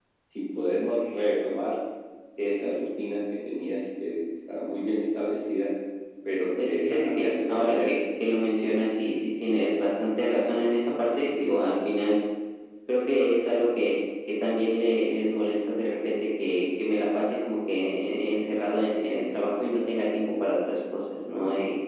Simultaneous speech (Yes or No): Yes